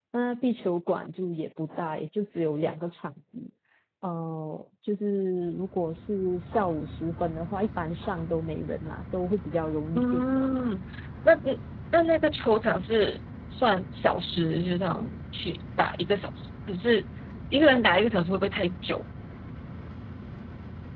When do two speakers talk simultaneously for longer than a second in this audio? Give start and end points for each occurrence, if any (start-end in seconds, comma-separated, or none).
none